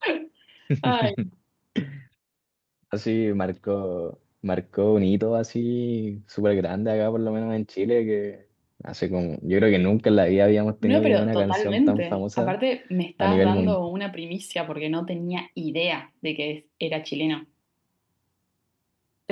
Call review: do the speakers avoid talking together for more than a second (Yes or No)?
No